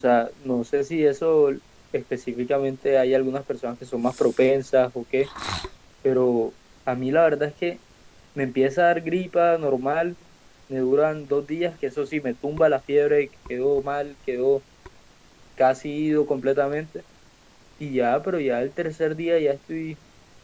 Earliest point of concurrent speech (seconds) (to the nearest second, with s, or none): none